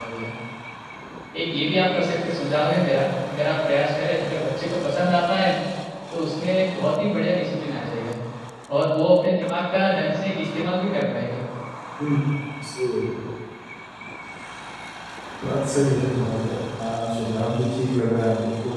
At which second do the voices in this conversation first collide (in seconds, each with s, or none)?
none